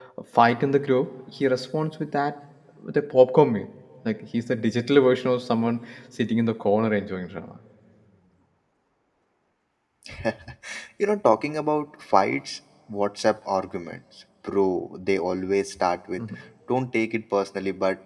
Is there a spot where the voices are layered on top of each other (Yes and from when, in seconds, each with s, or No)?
No